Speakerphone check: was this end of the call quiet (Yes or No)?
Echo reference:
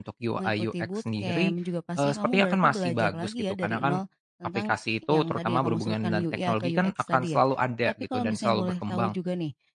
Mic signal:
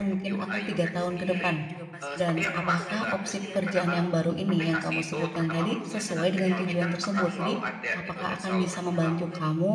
No